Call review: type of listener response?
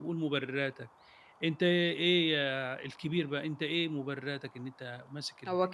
taking over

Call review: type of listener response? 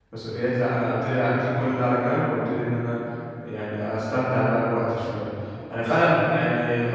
listening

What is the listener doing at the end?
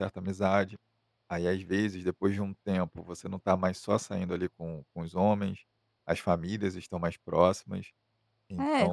taking over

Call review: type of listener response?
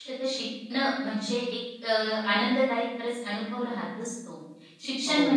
listening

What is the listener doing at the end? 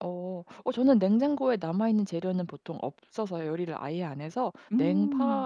listening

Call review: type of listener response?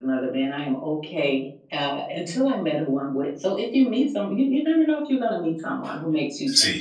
taking over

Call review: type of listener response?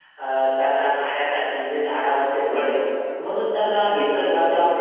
listening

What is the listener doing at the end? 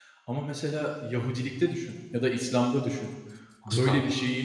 listening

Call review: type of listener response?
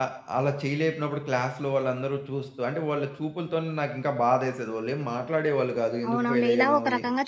taking over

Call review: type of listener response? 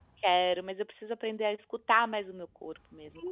taking over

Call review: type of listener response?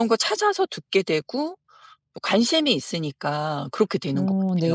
taking over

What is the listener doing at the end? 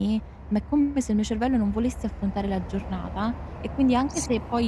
listening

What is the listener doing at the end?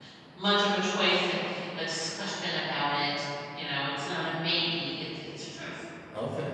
listening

